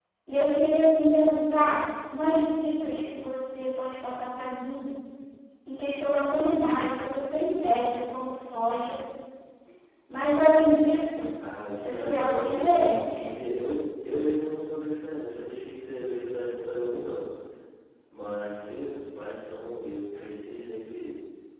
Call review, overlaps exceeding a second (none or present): present